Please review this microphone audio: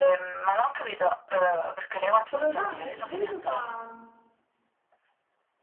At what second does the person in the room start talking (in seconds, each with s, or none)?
2.3 s